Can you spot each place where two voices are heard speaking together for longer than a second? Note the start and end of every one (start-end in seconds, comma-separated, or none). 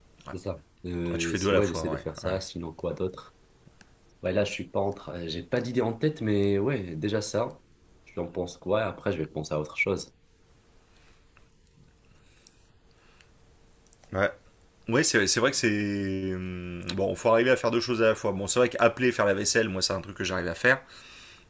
1.2-2.4